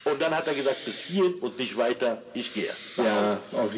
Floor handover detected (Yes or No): Yes